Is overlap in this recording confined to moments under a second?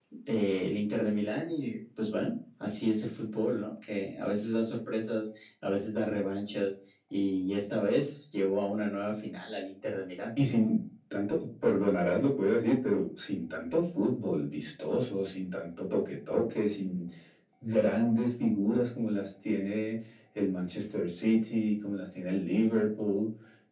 Yes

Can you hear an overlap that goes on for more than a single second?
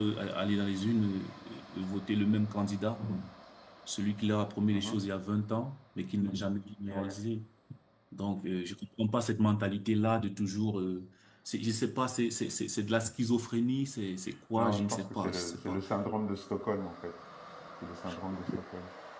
Yes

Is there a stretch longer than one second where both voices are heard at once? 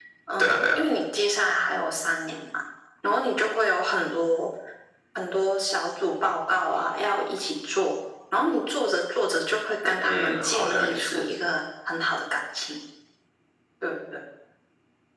Yes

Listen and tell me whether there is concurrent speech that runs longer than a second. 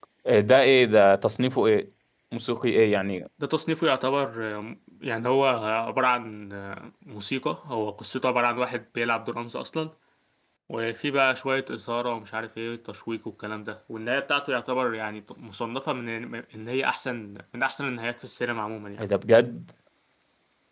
No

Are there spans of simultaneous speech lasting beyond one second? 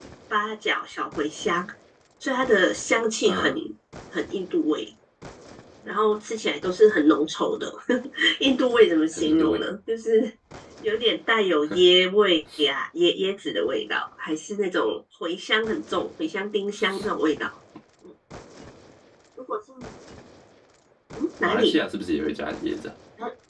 No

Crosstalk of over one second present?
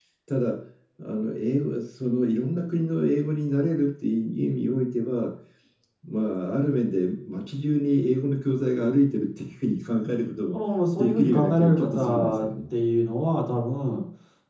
Yes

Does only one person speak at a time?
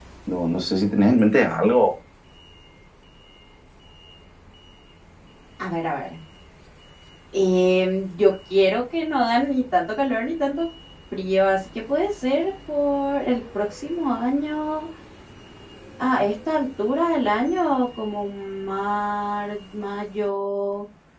Yes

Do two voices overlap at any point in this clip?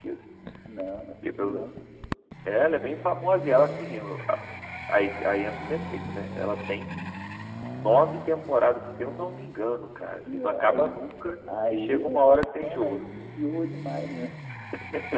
Yes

